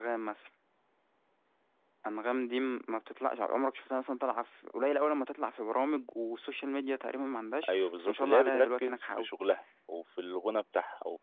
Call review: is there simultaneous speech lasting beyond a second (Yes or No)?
Yes